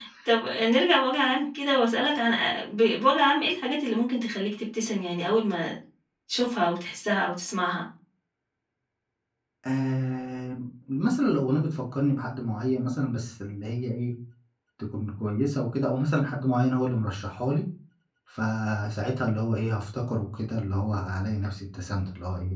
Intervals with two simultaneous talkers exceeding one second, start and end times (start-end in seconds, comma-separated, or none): none